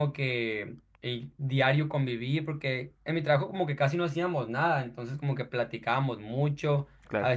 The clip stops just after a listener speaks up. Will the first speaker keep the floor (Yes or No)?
Yes